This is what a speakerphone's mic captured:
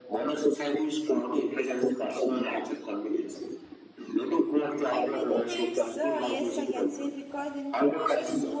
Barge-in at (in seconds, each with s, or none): 4.9 s